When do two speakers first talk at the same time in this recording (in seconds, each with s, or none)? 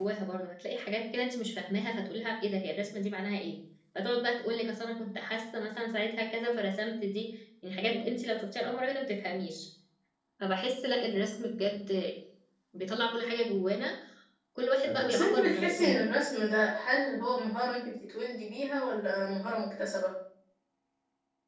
14.8 s